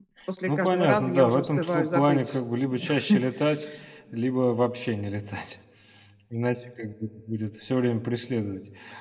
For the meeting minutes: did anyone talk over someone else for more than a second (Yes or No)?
Yes